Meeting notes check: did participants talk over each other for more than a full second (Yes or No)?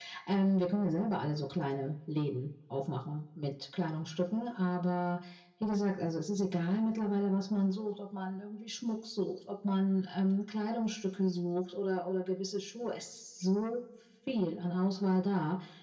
No